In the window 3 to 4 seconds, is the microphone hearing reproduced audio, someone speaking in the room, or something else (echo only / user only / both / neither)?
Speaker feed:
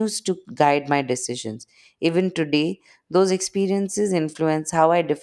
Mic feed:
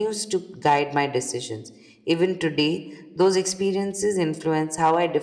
echo only